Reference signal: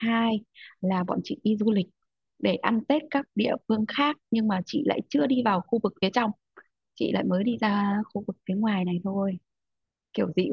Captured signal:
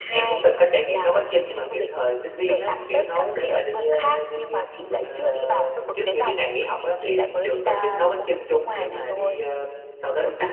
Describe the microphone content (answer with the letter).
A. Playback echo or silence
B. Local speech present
B